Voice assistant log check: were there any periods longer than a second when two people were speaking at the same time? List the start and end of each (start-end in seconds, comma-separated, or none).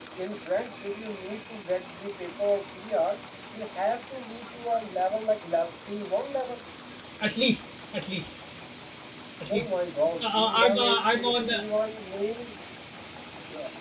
10.1-11.5